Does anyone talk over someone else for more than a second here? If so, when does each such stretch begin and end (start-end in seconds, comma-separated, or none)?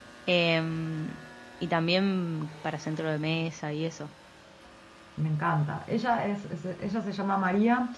none